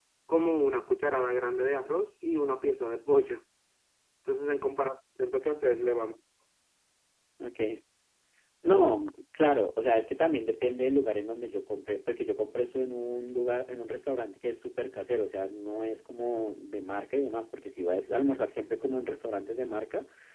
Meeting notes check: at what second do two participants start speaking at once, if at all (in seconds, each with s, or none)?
none